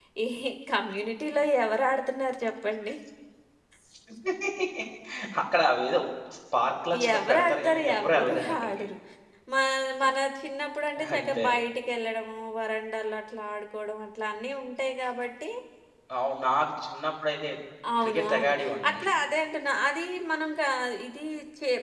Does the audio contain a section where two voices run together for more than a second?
Yes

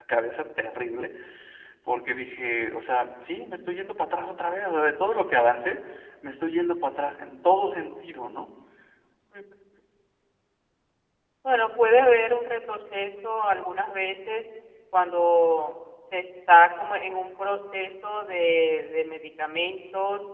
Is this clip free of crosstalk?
Yes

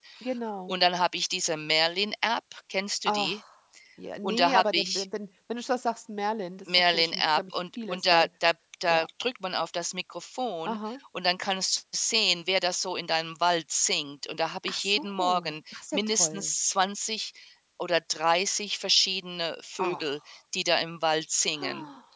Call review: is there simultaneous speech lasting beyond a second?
Yes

